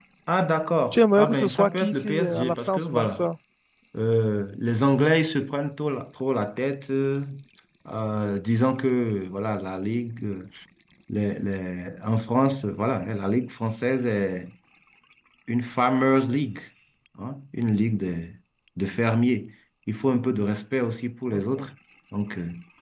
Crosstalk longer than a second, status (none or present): present